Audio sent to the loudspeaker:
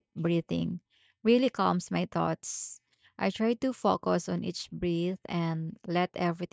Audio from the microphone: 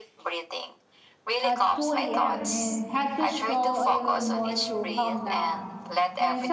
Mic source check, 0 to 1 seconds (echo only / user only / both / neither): echo only